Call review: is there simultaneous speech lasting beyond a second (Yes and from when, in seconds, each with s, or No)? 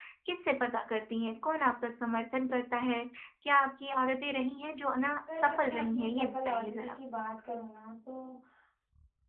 Yes, from 5.3 s